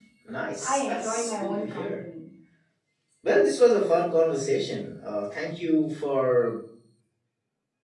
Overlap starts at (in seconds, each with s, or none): 0.6 s